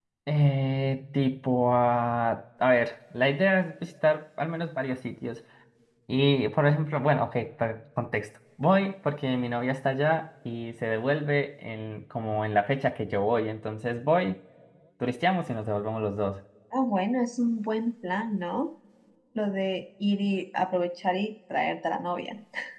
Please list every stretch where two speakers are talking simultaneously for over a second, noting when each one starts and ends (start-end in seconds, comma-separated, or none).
none